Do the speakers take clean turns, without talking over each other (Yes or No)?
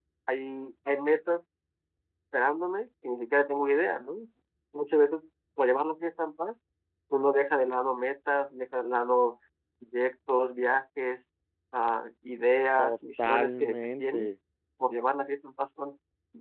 No